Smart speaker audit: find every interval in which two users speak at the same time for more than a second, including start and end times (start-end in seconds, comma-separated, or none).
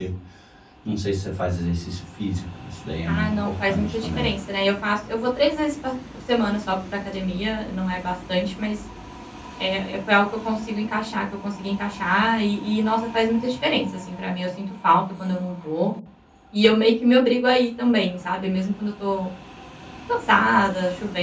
3.1-4.3